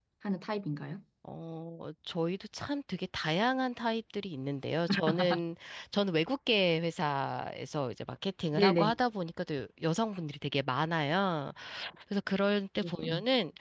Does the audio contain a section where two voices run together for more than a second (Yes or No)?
No